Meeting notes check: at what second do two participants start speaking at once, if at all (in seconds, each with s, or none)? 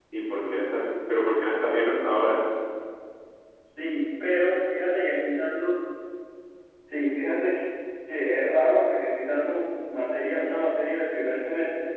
none